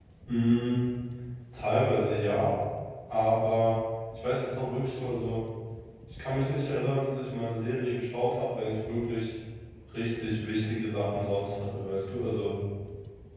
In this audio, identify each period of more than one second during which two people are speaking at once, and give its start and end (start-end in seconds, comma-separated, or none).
none